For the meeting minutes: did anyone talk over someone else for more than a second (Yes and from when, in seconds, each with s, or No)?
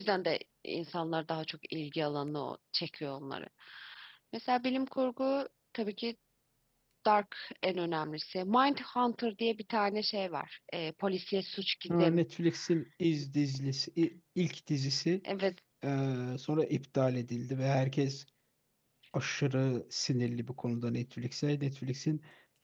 No